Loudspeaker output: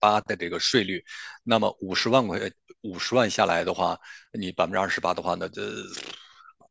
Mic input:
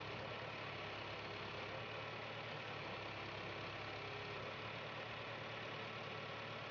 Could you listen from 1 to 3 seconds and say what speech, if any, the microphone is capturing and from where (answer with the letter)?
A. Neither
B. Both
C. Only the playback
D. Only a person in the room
A